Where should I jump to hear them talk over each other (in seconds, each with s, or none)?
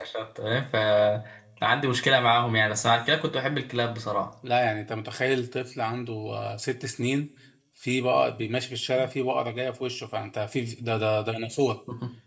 none